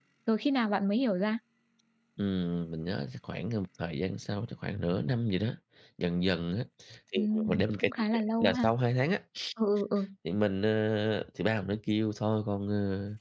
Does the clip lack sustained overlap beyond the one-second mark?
No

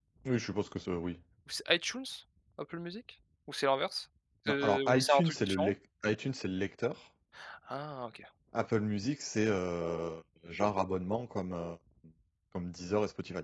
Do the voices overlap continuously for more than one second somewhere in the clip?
Yes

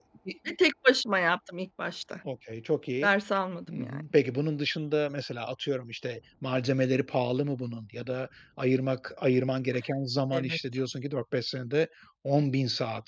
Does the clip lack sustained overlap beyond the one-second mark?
Yes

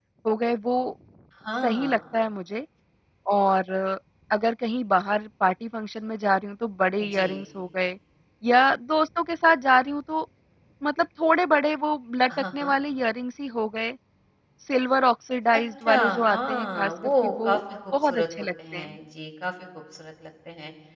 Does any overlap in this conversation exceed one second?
Yes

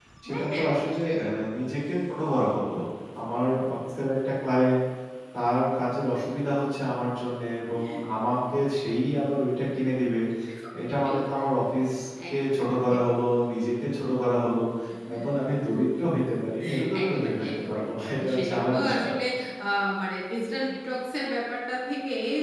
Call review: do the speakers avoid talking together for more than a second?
No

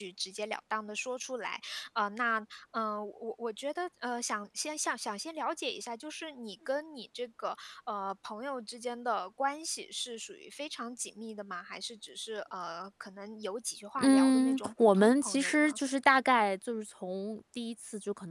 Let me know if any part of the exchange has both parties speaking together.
Yes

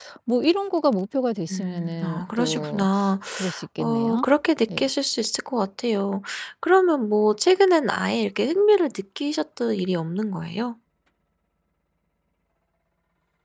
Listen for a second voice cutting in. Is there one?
Yes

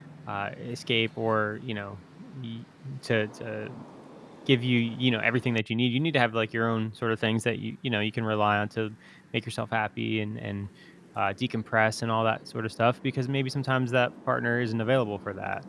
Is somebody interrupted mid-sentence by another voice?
No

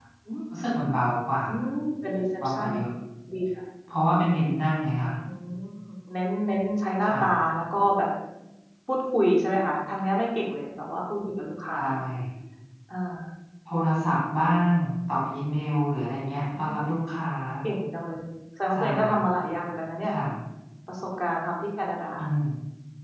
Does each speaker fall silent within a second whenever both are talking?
Yes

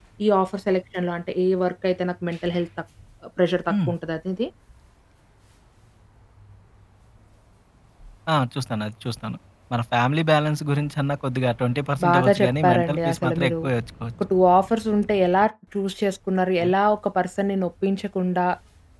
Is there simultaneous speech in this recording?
Yes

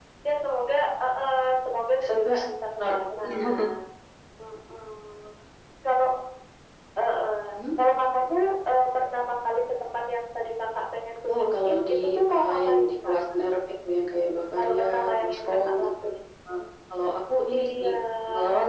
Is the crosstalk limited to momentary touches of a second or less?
No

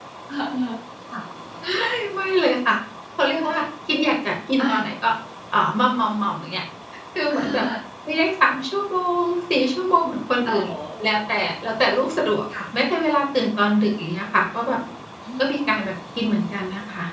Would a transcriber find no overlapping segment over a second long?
Yes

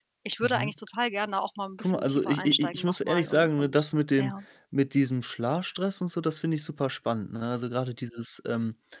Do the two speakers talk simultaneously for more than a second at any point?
Yes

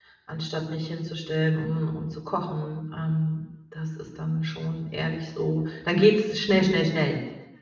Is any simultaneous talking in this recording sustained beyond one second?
No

